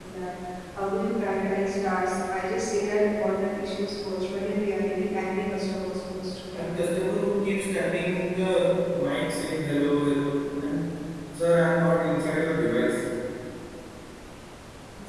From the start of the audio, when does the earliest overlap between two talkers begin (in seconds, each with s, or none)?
none